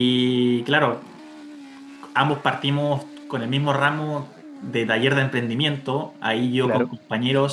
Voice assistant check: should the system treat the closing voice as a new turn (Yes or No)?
No